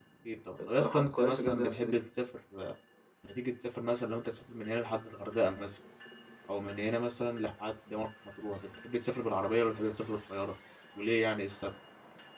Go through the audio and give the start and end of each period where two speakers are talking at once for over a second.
0.6-2.0

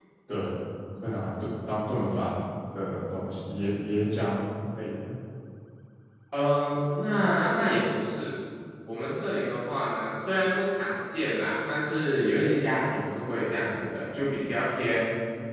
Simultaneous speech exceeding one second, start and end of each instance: none

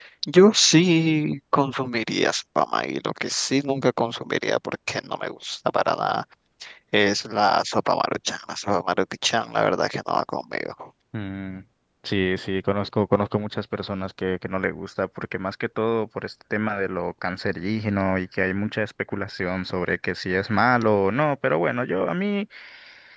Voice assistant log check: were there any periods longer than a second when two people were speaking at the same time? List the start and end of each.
none

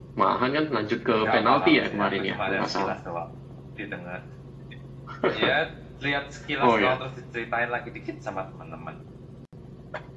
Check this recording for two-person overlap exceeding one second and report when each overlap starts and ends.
1.2-3.0

